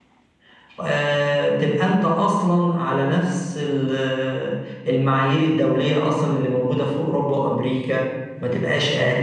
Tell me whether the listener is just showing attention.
No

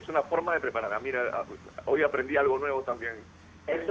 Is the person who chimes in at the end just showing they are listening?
No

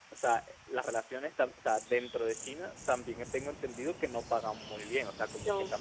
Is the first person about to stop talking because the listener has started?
No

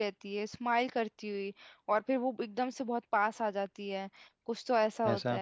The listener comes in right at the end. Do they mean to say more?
No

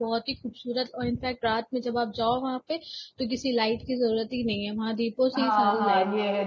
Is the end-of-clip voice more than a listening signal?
Yes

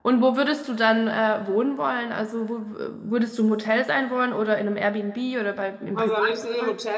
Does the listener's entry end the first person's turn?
Yes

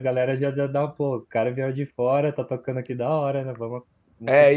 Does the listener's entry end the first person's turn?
Yes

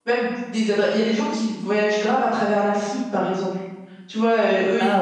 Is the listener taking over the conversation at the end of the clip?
No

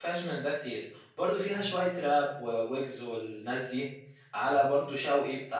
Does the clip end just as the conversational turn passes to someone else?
No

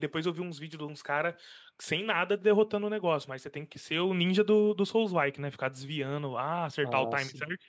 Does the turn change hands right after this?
No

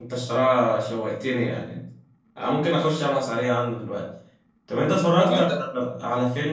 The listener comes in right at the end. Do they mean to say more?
No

